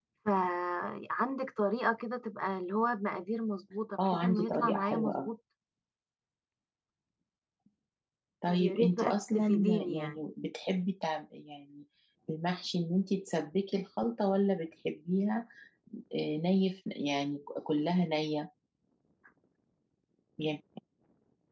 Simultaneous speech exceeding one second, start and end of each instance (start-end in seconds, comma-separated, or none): 4.1-5.3, 8.5-10.2